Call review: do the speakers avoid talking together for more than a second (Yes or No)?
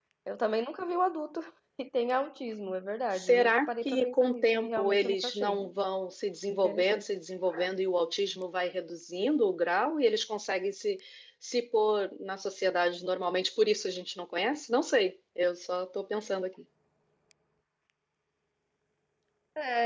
No